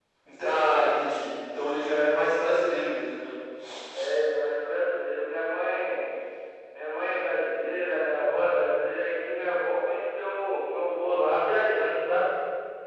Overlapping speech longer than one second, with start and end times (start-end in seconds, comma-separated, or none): none